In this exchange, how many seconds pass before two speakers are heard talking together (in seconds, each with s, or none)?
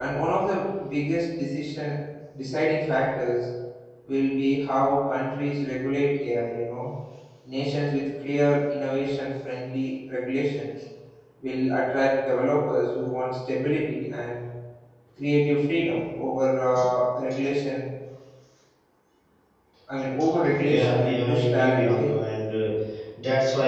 20.6 s